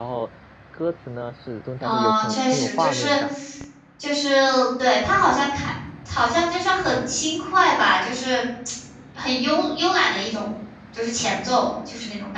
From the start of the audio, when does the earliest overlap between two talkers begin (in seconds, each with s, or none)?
1.8 s